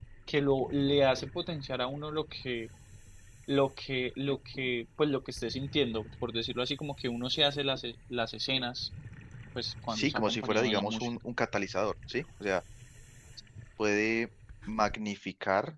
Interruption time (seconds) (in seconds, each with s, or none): 9.9 s